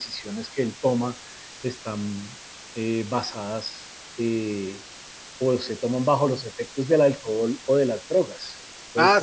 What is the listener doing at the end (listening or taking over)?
taking over